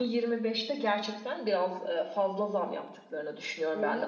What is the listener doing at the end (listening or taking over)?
listening